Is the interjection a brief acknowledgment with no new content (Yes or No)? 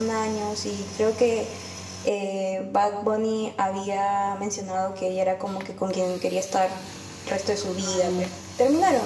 Yes